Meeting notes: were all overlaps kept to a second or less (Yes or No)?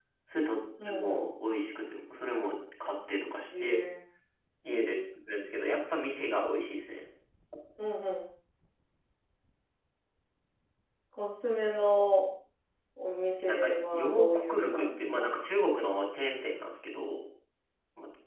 No